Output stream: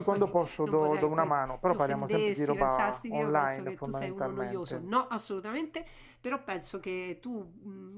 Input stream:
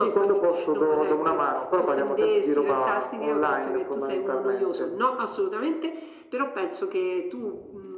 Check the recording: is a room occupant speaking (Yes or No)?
No